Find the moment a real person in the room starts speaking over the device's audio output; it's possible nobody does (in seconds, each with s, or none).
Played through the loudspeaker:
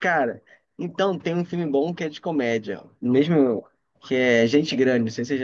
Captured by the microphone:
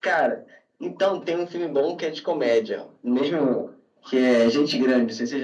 none